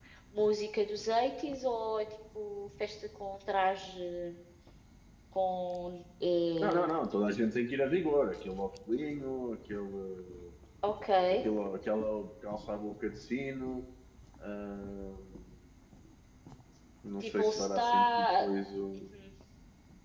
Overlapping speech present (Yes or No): Yes